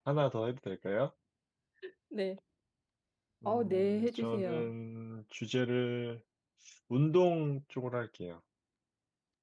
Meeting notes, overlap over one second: present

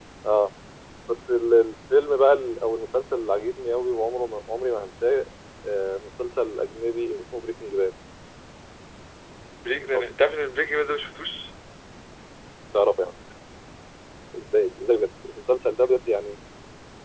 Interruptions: none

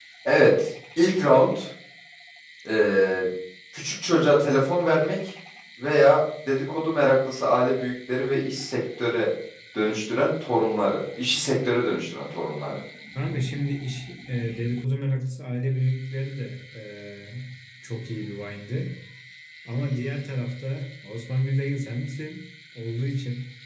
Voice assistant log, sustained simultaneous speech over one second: none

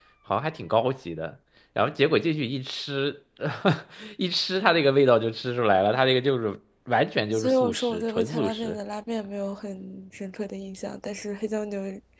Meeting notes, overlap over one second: present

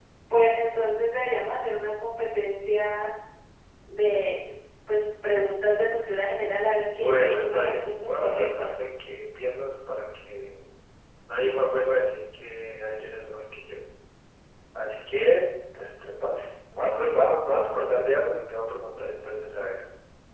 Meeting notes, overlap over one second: present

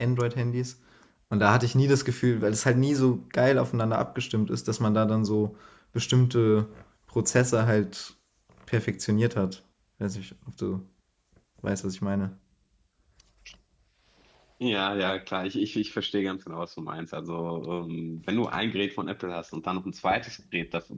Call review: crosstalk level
none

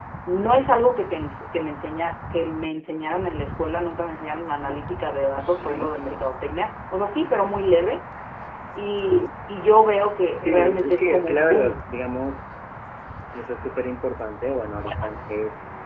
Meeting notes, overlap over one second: present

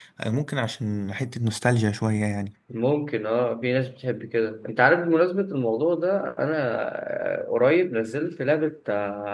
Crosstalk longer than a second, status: none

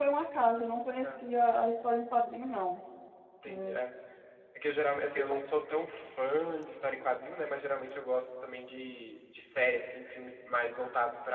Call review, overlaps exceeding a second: none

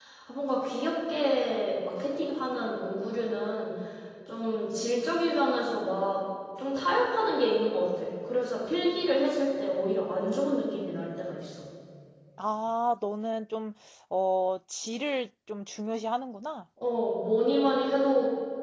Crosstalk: none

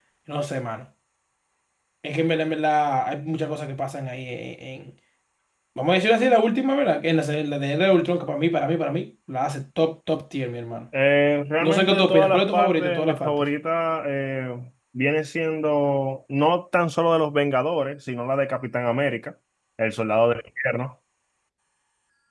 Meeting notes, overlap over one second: present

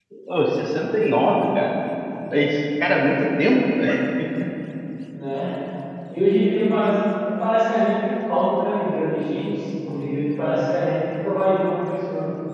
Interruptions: none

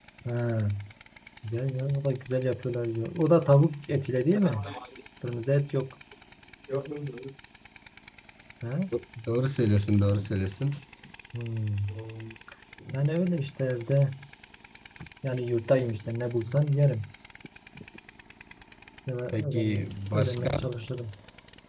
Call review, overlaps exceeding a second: present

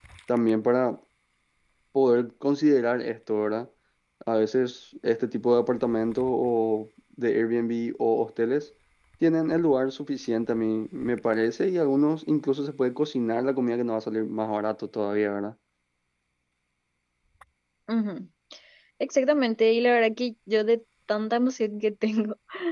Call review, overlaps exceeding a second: none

